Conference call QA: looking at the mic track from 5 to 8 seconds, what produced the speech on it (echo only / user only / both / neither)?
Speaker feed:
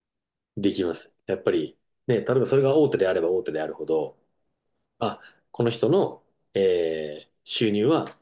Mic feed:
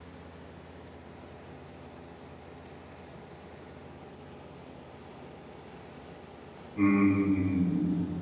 user only